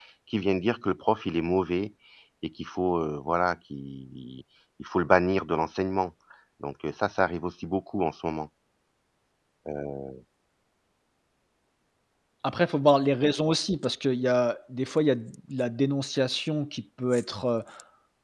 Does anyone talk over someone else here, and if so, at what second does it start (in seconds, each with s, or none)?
none